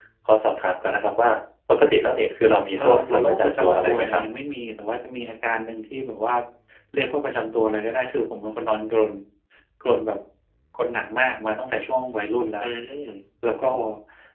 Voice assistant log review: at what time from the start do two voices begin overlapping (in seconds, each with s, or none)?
2.8 s